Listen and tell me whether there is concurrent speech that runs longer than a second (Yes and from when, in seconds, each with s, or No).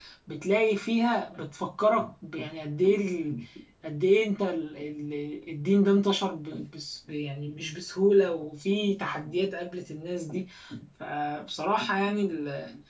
No